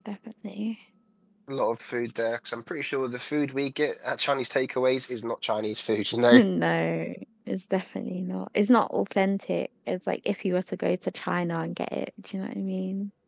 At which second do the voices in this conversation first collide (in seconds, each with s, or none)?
none